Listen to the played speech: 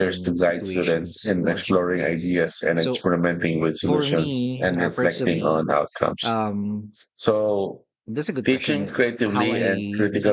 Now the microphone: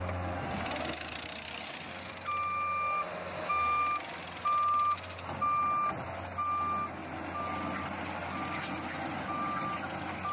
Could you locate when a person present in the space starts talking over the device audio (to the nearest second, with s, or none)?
none